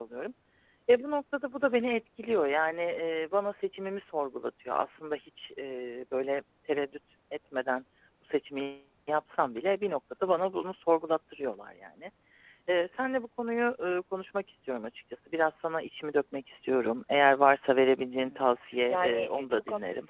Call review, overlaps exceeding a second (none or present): present